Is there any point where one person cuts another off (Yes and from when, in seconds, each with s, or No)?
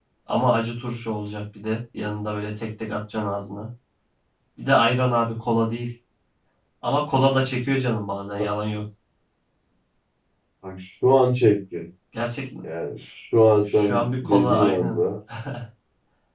Yes, from 13.8 s